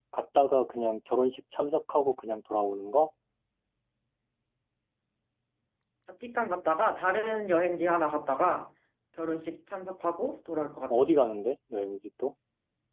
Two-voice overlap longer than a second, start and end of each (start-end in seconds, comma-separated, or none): none